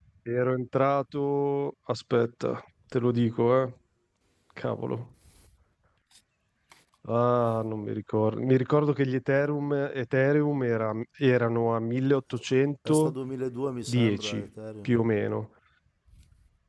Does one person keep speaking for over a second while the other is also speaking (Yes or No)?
No